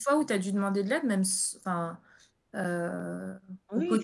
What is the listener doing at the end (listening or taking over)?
taking over